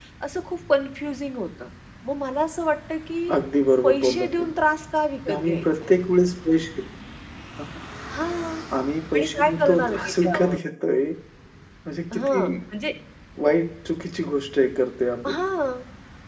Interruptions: present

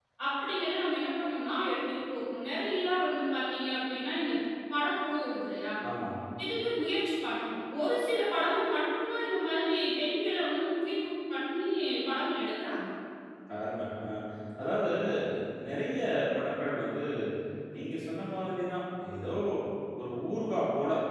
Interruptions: none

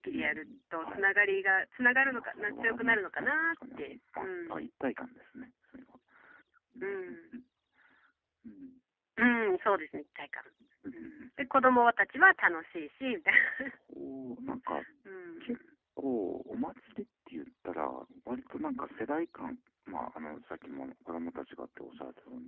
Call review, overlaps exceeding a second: present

